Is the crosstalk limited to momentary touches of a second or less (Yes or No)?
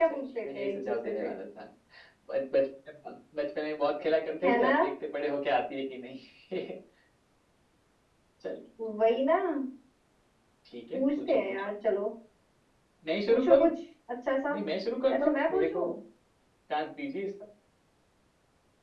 No